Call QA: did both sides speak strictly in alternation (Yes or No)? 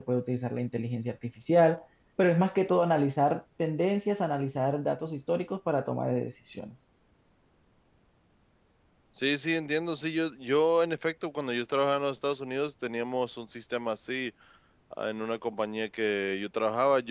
Yes